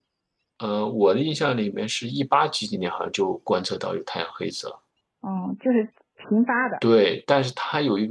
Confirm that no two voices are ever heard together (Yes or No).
Yes